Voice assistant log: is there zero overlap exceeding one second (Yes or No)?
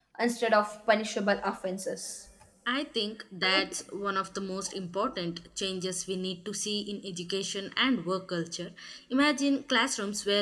Yes